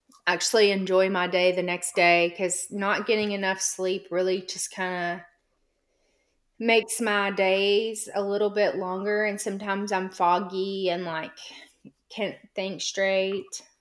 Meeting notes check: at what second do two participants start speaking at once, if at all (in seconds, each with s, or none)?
none